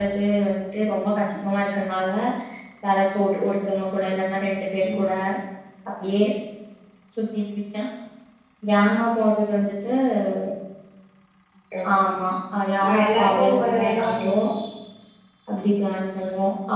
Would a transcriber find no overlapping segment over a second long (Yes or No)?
No